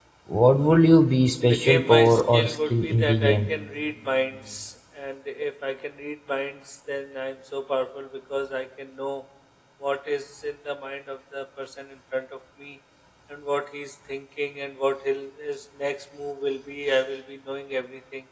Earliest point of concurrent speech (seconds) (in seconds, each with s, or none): 1.4 s